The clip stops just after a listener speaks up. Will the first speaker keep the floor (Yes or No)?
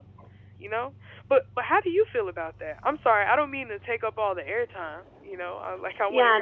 No